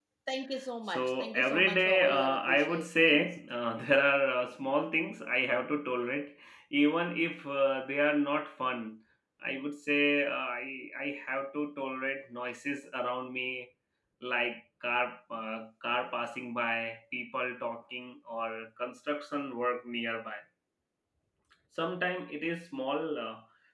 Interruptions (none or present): present